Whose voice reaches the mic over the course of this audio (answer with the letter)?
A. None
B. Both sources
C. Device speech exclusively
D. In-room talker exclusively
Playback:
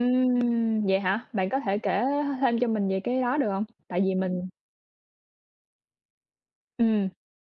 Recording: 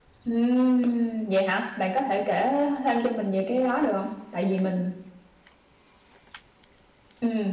C